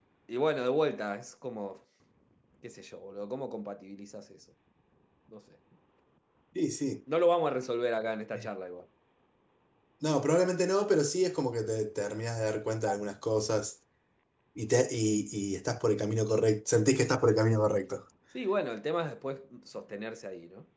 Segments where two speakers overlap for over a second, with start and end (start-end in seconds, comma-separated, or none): none